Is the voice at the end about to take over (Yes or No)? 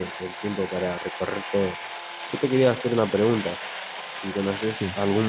No